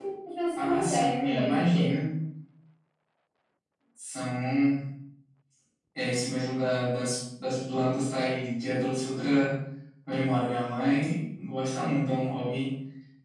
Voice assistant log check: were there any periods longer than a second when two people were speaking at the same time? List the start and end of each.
0.6-1.9

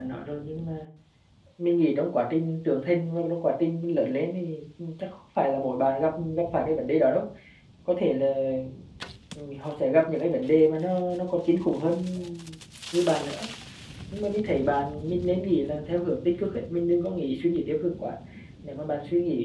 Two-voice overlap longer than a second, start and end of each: none

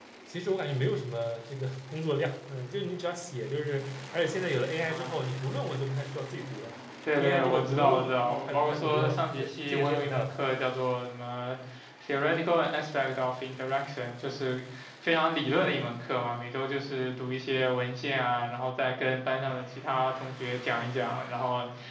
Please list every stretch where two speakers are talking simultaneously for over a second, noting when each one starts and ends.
7.2-10.3

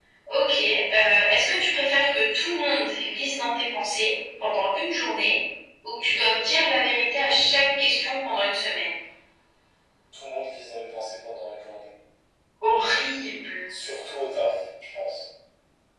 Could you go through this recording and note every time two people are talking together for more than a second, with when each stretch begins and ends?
none

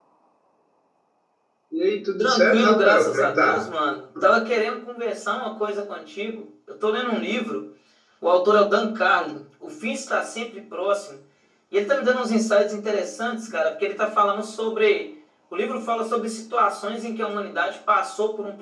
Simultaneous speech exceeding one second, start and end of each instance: 2.2-3.8

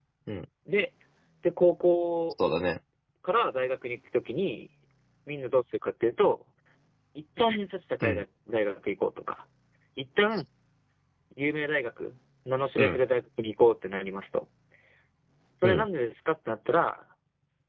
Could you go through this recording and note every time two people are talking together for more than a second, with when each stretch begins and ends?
none

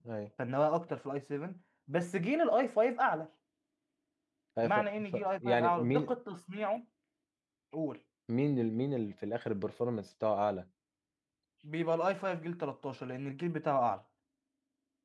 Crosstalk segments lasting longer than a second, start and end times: 4.6-6.1

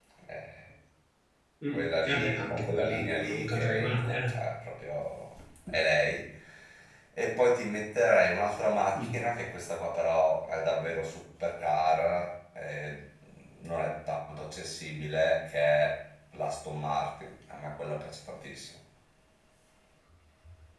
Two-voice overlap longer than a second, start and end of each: 1.7-4.3

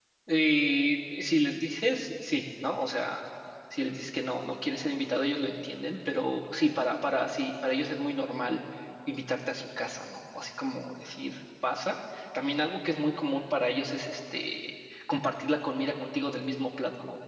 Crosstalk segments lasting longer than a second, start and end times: none

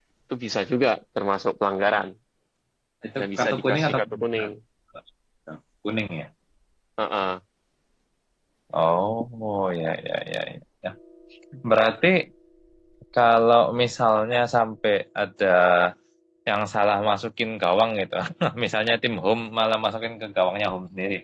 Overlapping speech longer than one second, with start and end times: 3.2-4.5

